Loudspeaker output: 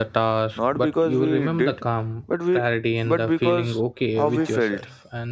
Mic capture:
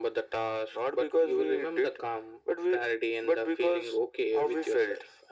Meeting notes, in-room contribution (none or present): none